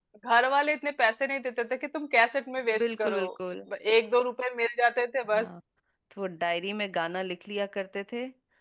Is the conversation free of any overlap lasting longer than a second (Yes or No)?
Yes